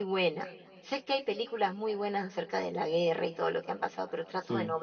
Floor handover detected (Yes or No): No